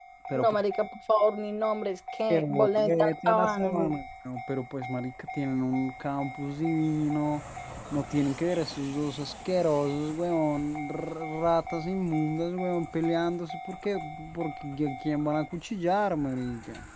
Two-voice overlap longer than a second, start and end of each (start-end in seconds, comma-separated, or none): 2.3-3.9